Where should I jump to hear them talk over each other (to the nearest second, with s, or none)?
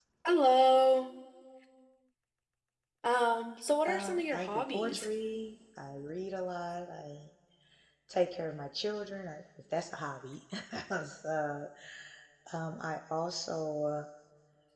4 s